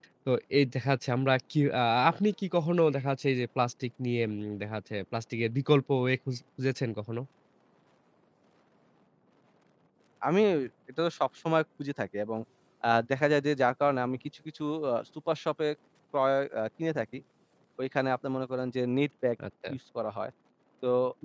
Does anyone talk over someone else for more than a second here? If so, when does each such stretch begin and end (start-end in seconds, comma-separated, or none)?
none